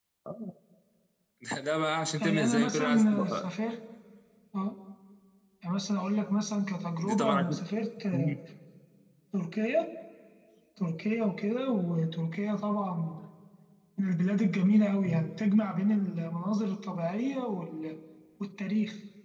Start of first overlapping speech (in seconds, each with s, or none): 2.2 s